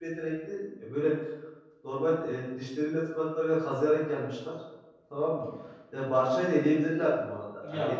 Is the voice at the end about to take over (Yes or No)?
Yes